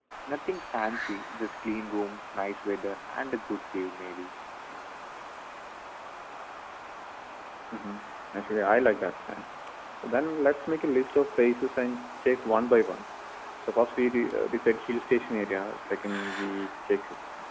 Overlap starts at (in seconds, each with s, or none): none